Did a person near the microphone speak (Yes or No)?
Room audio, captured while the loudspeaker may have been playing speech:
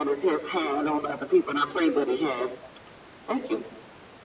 No